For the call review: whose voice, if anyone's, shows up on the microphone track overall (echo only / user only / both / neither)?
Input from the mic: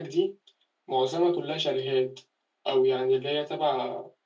echo only